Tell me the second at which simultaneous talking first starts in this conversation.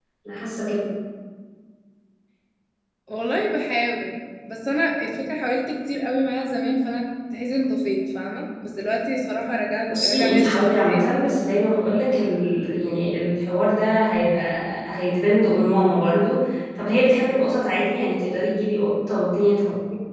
10 s

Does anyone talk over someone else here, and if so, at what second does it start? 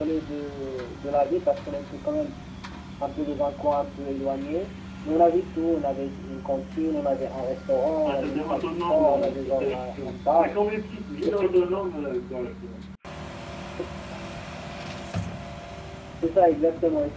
8 s

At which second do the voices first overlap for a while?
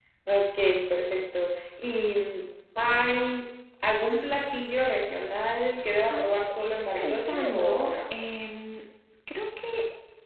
6 s

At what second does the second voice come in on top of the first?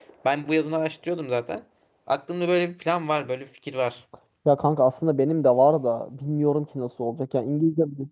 none

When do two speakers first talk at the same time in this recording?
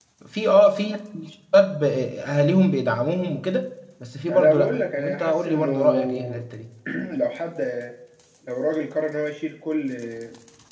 4 s

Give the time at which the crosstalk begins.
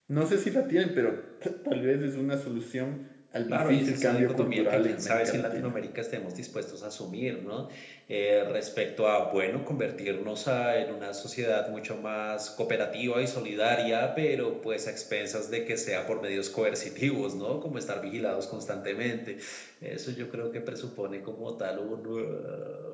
3 s

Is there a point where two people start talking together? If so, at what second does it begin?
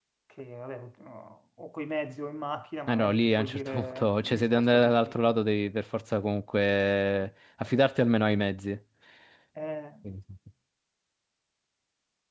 3 s

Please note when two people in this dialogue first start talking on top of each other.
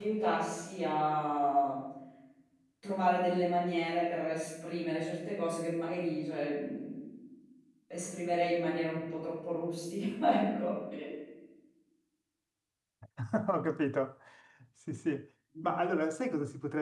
none

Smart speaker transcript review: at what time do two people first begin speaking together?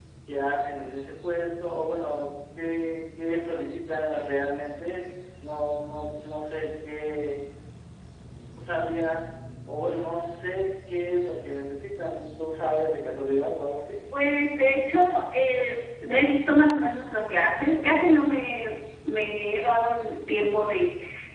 none

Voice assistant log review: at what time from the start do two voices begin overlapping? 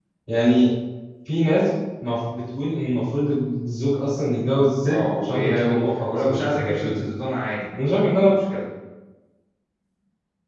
5 s

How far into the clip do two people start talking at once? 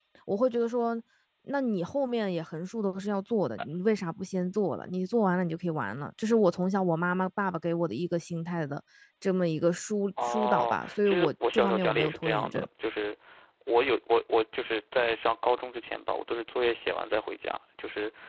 10 s

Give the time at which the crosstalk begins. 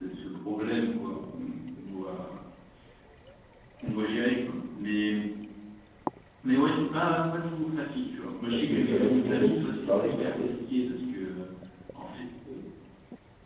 9 s

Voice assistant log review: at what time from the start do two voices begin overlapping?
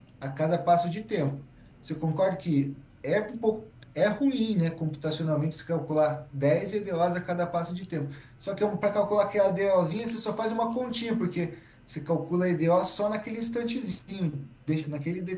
none

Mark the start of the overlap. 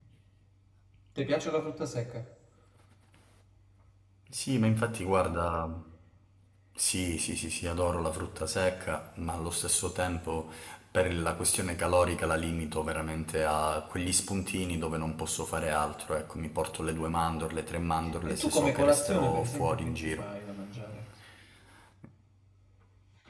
18 s

